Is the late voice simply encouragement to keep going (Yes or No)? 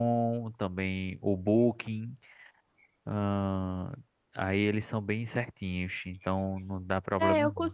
No